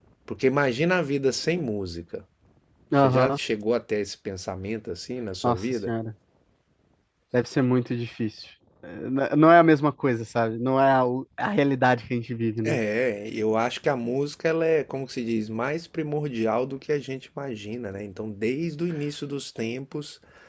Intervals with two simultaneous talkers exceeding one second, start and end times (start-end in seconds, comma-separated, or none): none